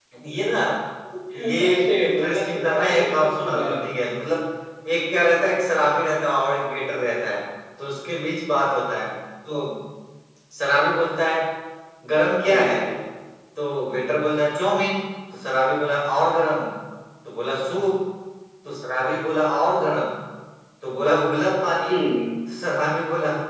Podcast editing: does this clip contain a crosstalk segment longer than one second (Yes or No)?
Yes